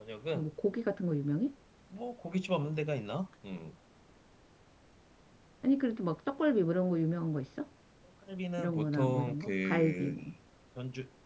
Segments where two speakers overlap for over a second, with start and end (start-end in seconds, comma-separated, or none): 8.6-10.2